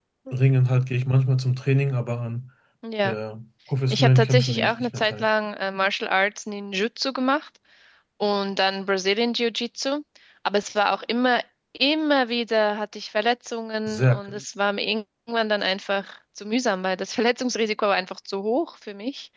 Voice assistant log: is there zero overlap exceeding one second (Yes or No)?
No